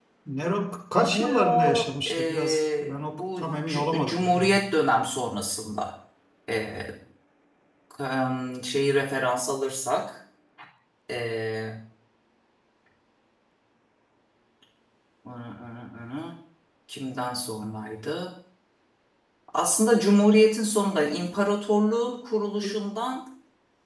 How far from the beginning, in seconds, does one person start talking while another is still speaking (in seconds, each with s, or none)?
1.0 s